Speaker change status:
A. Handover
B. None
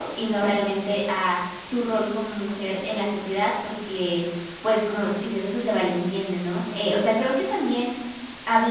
B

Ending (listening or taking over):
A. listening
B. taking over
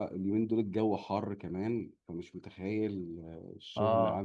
A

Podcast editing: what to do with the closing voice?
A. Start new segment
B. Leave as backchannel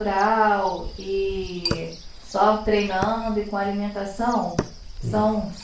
B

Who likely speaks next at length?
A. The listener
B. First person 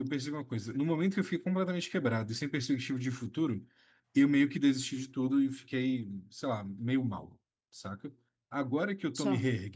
B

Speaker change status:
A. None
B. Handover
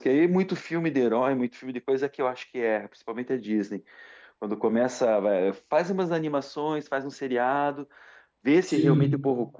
A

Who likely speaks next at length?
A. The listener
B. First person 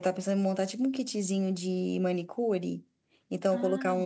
B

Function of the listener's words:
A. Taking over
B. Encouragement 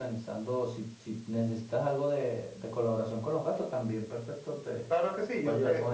A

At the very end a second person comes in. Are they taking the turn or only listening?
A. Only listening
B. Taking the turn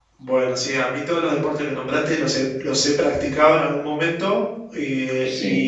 A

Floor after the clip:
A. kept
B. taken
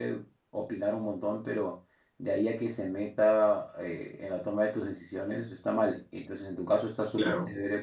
A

